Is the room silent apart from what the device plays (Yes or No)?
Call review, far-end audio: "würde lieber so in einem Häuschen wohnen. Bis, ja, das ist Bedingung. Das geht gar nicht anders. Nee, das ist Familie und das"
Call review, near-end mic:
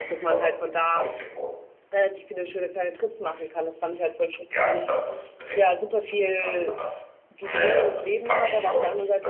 No